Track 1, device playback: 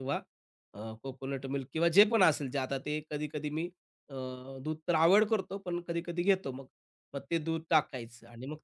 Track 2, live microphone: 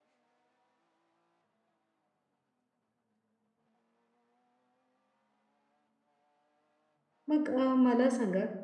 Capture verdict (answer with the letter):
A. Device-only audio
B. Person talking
B